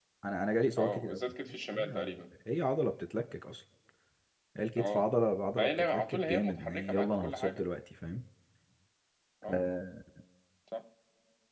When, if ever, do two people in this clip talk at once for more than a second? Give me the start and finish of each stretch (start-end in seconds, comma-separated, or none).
5.6-7.6